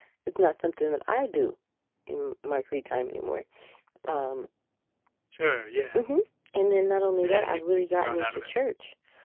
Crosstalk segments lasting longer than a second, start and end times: 7.2-8.5

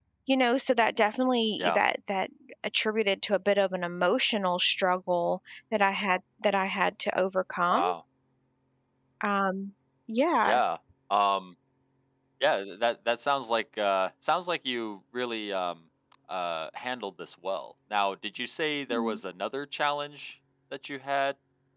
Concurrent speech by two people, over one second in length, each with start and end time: none

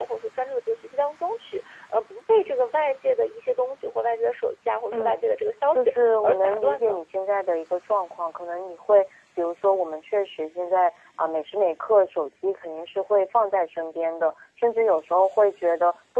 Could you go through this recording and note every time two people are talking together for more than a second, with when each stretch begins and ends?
5.7-7.0

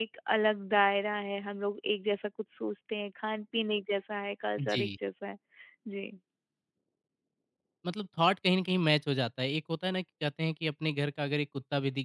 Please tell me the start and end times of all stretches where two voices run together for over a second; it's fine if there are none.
none

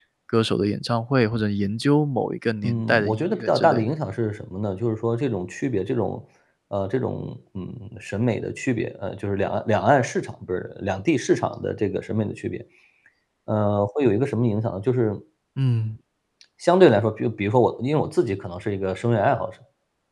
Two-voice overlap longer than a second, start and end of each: 2.6-3.9

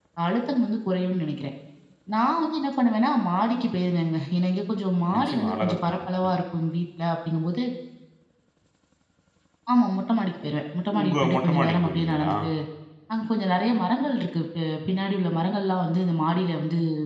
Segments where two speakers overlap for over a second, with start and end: 5.2-6.4, 11.0-12.3

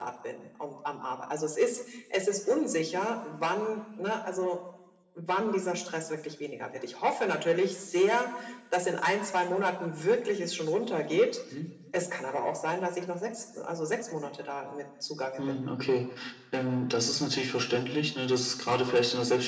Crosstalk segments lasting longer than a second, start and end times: none

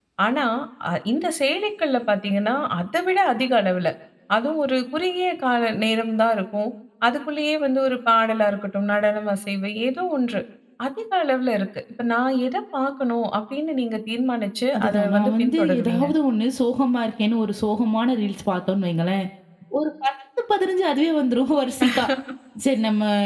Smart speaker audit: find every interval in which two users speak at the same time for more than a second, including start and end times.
14.8-16.1

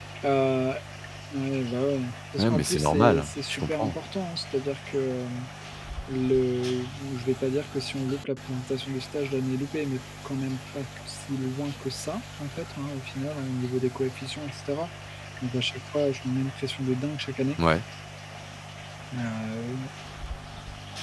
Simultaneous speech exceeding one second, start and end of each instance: 2.4-4.0

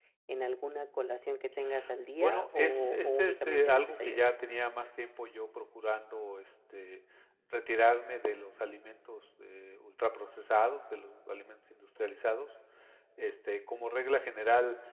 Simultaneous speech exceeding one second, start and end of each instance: 2.1-4.2

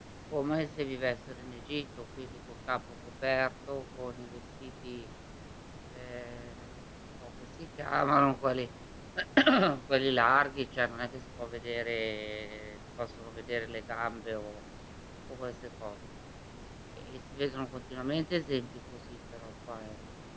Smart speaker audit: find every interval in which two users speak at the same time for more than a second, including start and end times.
none

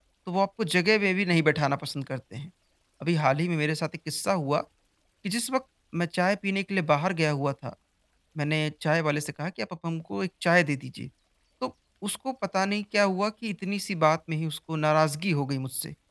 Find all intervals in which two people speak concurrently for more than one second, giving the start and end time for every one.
none

